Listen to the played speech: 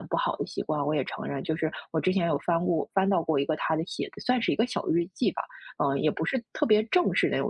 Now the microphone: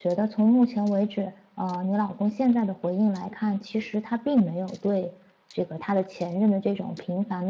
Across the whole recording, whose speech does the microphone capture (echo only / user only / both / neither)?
user only